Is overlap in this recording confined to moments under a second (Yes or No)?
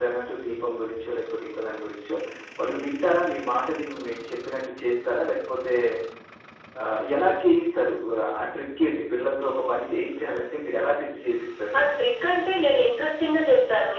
Yes